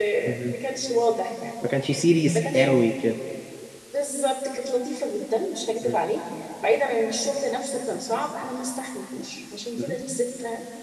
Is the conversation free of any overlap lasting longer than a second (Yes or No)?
Yes